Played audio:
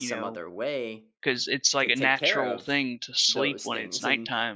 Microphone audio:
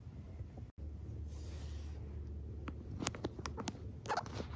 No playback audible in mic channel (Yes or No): Yes